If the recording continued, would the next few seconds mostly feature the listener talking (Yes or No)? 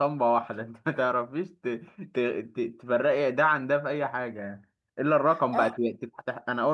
No